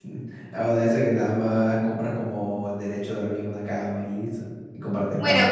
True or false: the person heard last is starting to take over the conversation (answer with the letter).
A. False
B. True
B